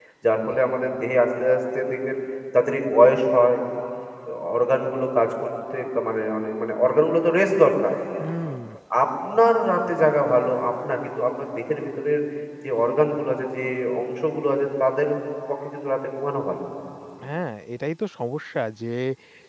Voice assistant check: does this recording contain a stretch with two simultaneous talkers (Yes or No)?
No